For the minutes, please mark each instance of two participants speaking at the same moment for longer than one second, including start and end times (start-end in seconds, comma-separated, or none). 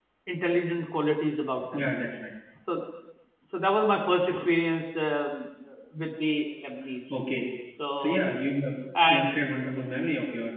none